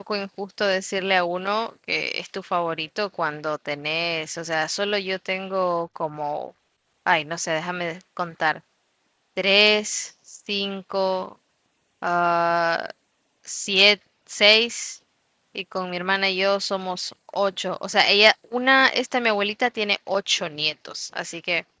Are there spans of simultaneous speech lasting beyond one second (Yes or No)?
No